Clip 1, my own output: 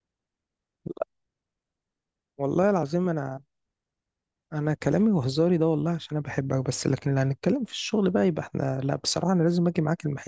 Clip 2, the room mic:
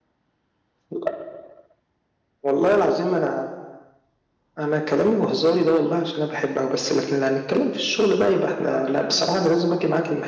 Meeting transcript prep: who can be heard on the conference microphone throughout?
both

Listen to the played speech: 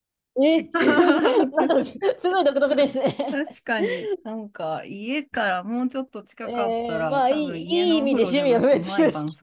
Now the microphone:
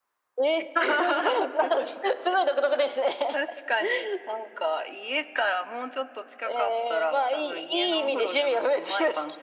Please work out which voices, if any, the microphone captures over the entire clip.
echo only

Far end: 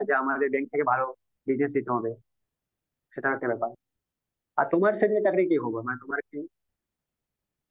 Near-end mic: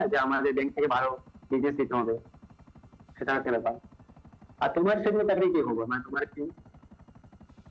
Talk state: echo only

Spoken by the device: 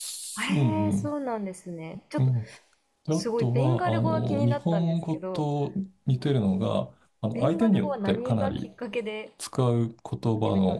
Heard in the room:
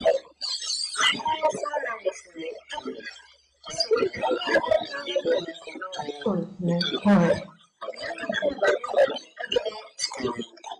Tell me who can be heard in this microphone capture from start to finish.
both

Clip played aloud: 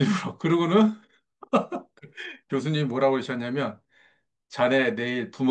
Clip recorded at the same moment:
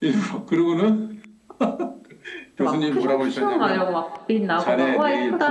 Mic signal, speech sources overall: both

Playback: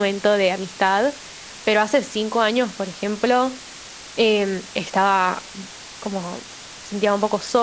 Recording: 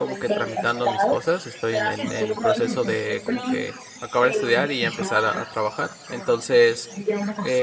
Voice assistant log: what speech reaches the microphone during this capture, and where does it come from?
both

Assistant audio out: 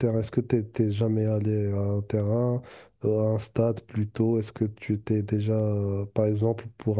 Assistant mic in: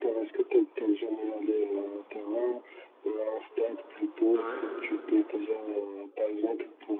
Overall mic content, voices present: both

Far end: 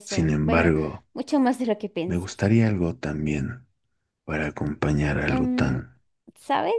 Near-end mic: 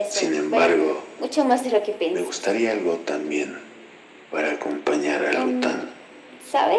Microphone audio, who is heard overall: echo only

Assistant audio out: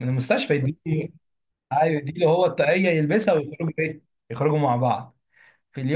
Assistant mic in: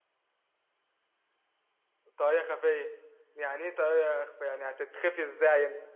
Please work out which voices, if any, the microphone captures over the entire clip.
user only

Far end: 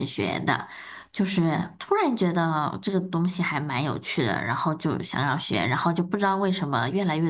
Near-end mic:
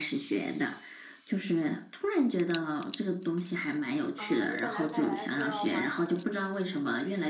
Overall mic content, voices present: both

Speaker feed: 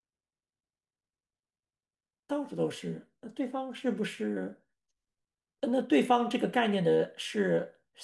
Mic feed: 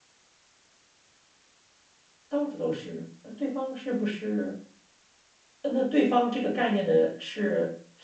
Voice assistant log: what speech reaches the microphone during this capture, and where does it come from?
echo only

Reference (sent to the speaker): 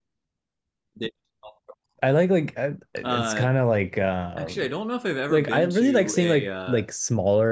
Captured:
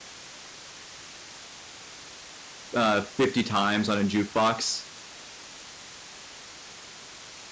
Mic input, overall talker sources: user only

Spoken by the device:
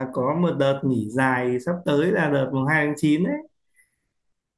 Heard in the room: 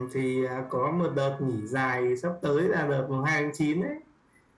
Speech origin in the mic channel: echo only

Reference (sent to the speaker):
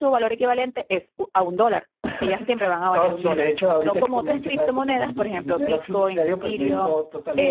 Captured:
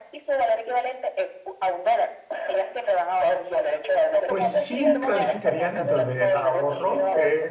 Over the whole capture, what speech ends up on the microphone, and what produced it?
both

